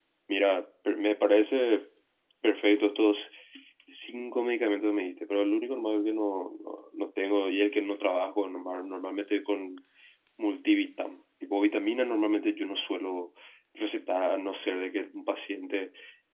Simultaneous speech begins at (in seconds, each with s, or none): none